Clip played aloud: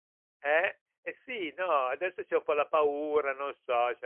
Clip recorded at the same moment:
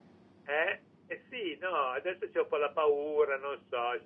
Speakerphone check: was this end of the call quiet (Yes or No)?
Yes